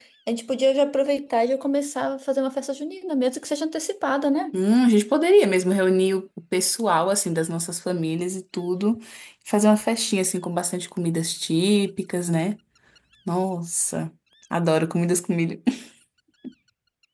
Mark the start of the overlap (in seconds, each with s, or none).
none